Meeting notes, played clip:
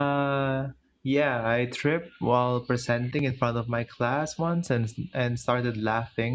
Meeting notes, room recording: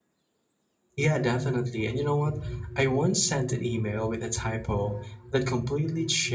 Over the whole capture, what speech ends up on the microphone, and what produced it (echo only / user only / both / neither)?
user only